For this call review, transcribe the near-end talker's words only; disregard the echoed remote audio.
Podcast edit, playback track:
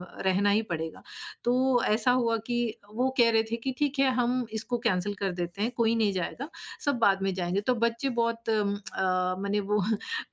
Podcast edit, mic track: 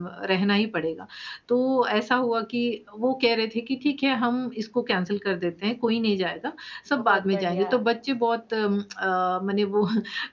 बहुत बढ़िया।

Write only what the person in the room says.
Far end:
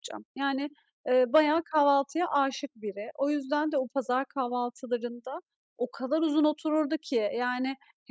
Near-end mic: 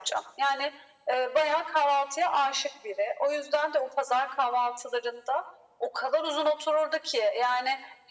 none

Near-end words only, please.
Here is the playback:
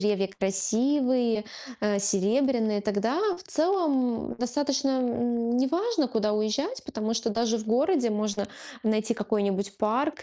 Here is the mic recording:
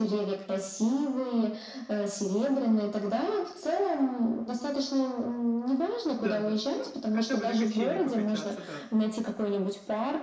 Н-да, да. Ну, хотя бы на качели покачаться, да.

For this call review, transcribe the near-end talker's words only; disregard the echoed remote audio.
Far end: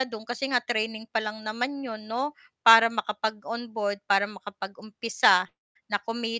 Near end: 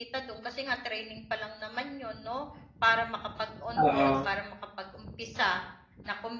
Oo.

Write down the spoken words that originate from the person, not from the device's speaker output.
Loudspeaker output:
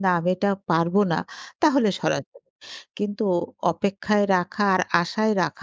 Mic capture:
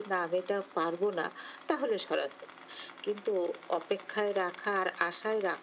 none

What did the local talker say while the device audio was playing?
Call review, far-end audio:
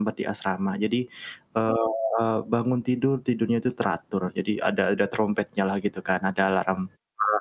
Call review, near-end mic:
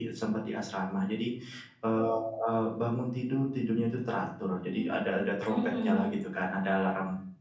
Mmm, heeh.

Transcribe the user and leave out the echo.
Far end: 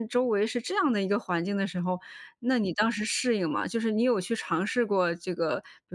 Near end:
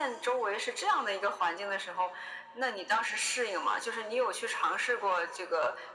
none

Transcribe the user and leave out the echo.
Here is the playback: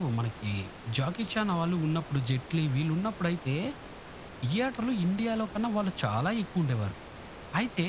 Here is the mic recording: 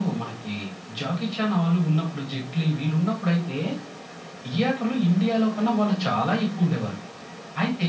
none

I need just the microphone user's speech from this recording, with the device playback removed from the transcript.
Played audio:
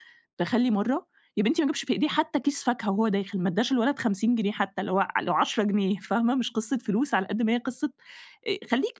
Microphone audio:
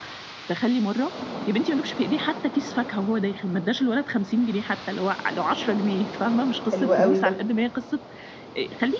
حلو أوي ده.

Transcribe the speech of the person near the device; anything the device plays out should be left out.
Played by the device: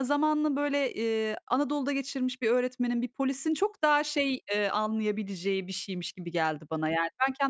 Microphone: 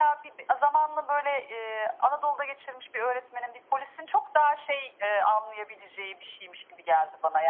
none

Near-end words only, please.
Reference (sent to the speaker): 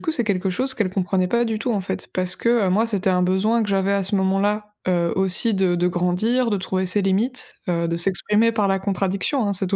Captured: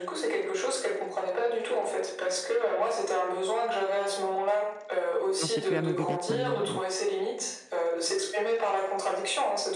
non, c'est plus la mobylette maintenant, mais bon.

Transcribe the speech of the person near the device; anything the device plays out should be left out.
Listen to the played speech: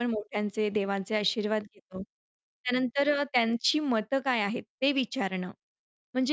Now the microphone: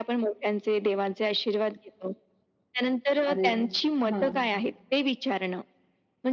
अरे वाह, हां.

